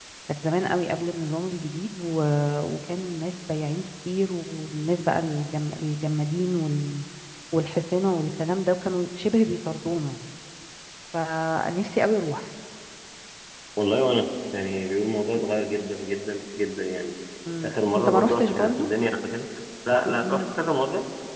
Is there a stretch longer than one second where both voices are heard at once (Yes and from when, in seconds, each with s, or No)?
Yes, from 17.6 s